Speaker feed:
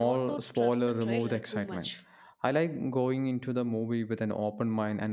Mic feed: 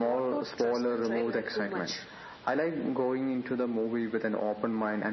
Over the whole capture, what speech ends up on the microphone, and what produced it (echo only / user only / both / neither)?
echo only